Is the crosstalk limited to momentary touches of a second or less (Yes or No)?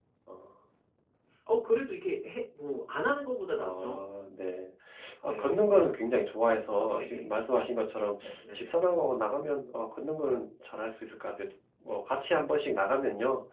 Yes